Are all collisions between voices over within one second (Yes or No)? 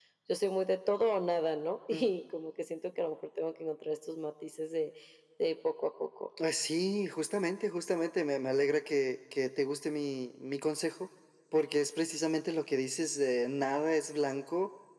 Yes